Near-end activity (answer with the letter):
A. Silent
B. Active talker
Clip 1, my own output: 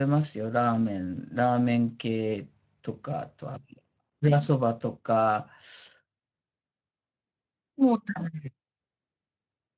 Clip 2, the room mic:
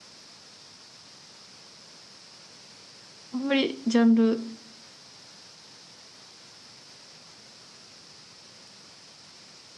B